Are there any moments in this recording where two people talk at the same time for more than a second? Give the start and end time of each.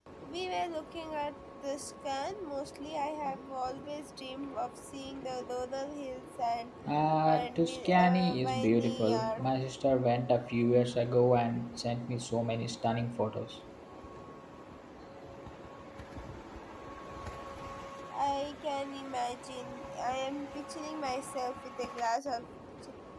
7.2-9.4

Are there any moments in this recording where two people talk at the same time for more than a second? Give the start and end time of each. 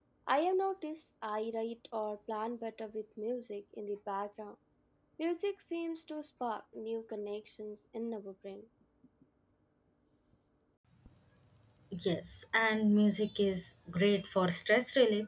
none

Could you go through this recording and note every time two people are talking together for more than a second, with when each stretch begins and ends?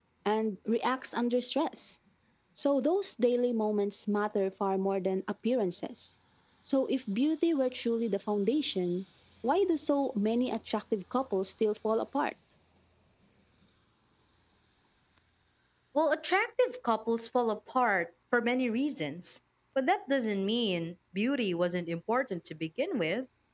none

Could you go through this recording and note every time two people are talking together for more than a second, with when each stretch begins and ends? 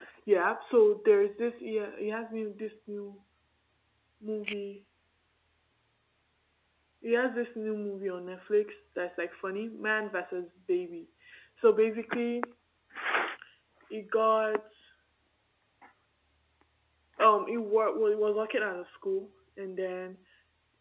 none

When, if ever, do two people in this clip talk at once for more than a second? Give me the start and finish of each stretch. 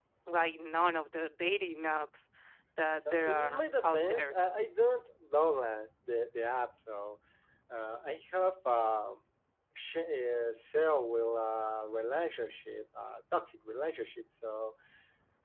3.1-4.3

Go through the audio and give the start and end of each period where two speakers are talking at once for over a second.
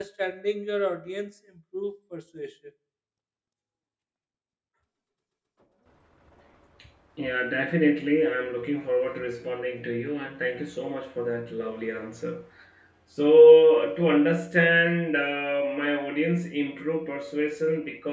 none

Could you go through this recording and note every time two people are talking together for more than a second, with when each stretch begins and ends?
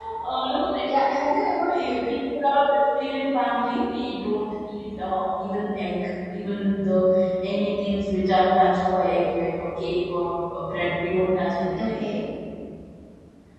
none

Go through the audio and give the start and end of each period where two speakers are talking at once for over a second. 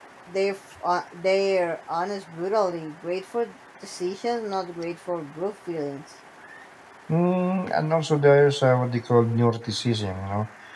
none

